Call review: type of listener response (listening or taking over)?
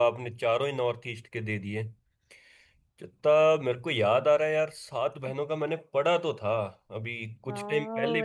taking over